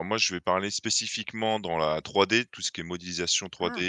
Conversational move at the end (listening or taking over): listening